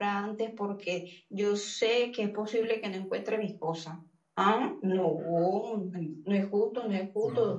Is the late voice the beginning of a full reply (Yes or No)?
No